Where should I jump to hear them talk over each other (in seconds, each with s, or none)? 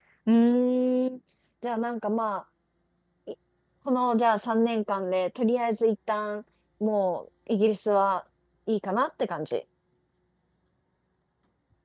none